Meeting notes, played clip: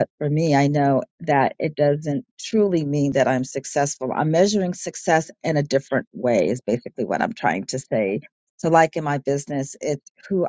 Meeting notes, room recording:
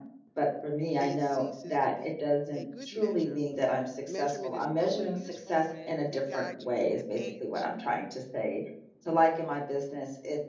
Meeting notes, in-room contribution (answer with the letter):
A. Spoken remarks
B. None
A